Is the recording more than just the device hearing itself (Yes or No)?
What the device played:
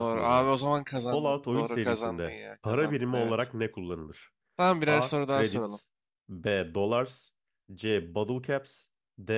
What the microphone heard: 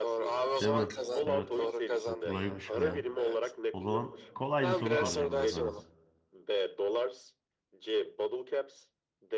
Yes